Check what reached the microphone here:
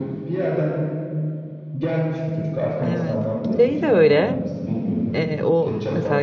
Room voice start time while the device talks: 2.8 s

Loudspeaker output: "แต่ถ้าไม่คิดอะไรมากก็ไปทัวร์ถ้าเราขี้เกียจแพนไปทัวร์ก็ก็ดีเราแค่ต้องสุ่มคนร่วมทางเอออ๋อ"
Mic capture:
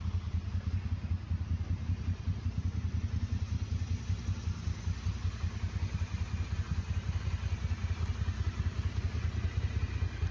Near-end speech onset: none

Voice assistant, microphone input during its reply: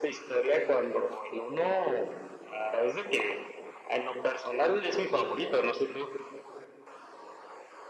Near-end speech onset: none

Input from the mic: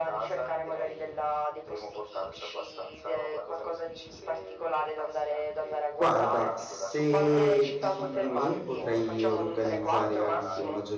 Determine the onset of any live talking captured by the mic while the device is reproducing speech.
6.0 s

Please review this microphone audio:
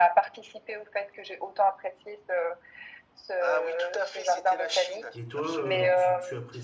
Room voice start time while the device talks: 5.1 s

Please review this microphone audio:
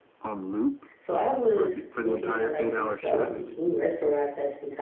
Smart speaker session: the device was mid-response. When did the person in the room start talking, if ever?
1.0 s

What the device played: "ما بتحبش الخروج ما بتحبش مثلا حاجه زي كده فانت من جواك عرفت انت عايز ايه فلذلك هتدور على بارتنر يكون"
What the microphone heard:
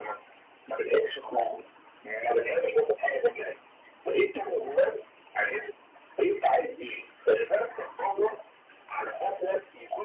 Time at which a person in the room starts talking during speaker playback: none

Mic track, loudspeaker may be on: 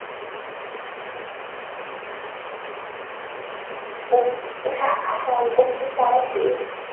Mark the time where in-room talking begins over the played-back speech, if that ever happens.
4.0 s

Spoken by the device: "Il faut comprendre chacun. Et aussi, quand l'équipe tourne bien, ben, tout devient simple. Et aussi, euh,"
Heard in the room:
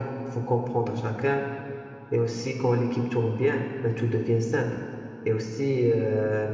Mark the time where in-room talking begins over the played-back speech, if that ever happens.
none

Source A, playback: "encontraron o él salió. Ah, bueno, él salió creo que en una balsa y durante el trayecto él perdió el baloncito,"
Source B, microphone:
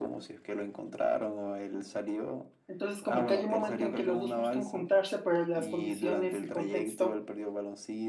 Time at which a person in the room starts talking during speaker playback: 2.7 s

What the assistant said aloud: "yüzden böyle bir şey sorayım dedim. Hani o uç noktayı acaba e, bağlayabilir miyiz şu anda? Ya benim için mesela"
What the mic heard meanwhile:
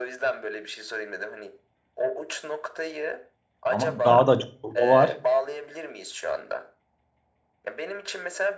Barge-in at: 3.7 s

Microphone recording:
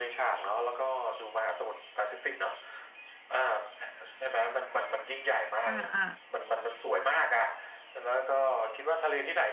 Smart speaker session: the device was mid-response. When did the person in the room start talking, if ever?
5.6 s

